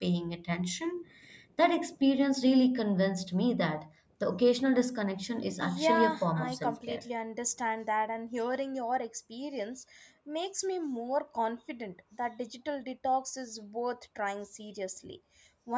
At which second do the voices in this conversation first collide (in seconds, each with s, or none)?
5.6 s